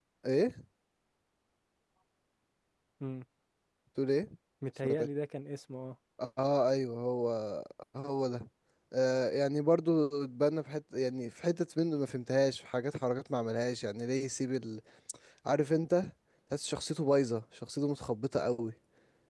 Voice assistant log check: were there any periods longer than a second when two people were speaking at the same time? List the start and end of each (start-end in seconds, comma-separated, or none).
none